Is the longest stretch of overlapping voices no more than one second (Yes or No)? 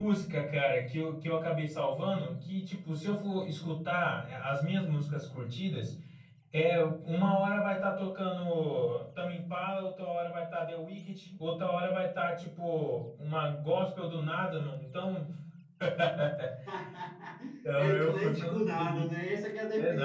No